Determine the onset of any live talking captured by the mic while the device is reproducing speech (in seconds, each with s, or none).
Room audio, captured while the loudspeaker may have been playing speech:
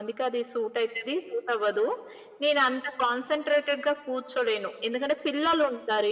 none